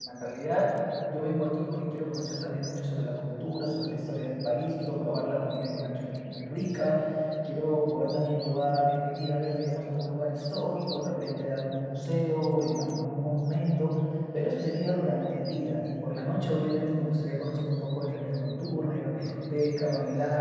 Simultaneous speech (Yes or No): No